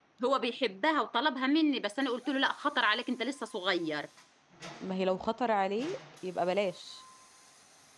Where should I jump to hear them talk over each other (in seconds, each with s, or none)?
none